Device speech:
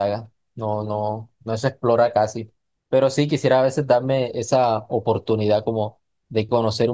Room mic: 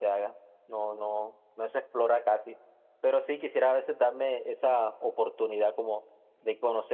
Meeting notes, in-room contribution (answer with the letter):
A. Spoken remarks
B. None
B